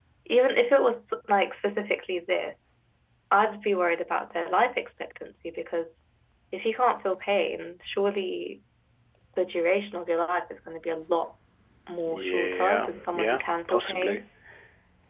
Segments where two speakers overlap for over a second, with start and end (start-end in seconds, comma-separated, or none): 12.1-14.2